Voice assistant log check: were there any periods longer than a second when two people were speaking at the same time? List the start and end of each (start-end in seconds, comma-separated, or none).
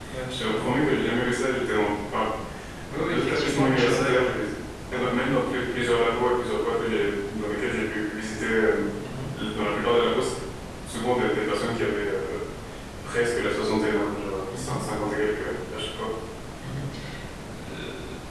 3.0-4.3